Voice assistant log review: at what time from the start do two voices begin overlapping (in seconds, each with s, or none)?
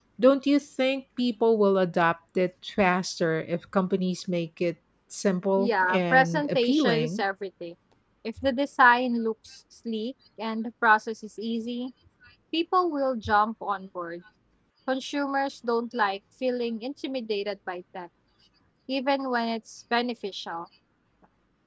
5.6 s